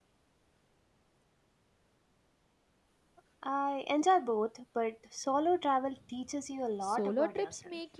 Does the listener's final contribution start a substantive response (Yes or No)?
Yes